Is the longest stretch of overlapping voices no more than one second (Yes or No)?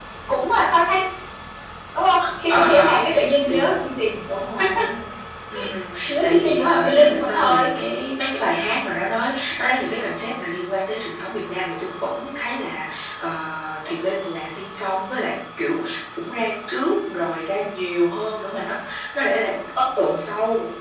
No